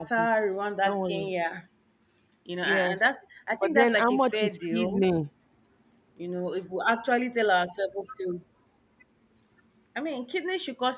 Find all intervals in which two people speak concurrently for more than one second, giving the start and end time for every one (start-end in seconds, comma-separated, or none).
3.6-5.0